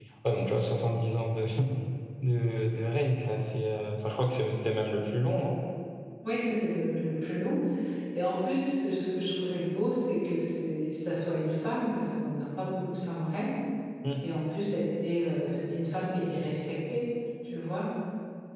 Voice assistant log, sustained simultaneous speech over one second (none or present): none